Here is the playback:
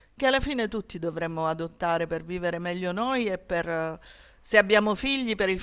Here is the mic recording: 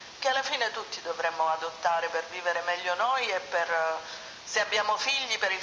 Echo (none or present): present